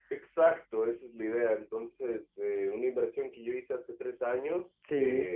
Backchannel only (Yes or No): Yes